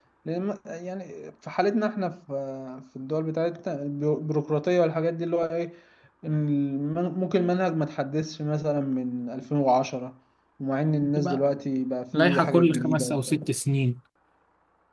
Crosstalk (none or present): present